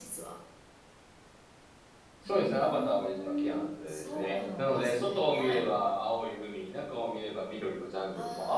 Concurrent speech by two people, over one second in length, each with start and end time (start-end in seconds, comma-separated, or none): 2.2-5.6